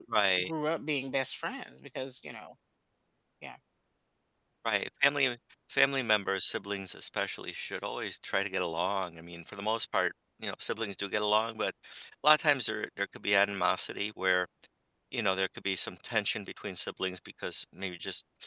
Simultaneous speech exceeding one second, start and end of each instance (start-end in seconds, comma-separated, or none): none